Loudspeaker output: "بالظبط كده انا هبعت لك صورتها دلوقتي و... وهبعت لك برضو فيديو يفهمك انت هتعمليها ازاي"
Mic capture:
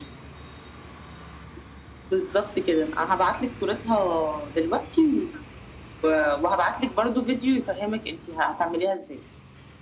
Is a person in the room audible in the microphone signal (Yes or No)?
No